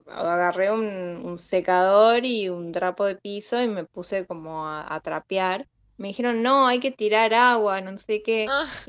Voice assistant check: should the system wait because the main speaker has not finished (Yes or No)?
Yes